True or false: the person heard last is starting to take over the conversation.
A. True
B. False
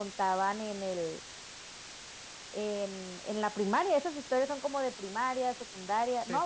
B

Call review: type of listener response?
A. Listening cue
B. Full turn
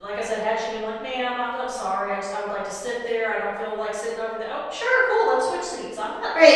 B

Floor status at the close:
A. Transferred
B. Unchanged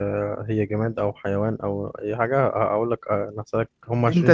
A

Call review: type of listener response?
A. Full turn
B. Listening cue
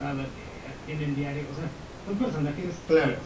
B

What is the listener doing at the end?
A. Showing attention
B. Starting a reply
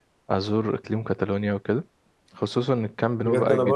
B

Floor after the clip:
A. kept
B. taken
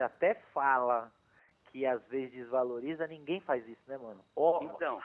A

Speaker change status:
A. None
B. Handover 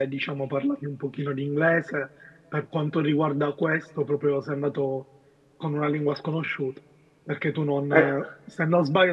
A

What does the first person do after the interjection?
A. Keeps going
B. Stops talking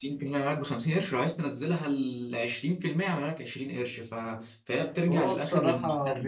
B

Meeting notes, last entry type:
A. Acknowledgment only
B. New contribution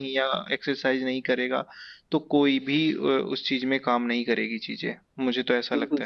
B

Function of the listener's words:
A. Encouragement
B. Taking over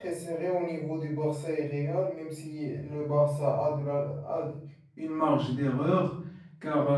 A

